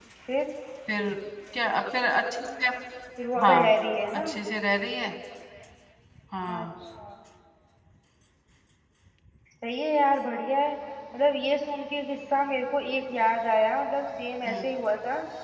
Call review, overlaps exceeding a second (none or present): none